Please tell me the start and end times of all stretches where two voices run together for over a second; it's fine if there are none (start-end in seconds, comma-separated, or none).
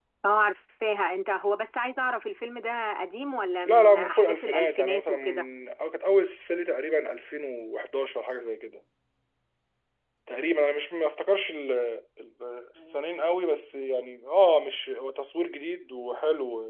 3.7-5.5